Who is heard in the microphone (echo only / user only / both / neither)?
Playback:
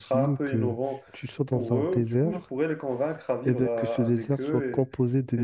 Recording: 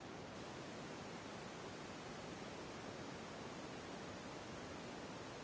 neither